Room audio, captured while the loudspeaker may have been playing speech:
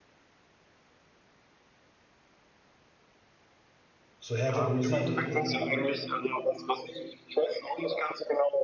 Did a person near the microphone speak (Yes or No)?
Yes